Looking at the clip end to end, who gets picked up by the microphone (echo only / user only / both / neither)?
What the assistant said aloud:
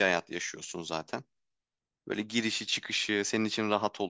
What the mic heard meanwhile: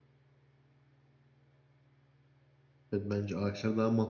user only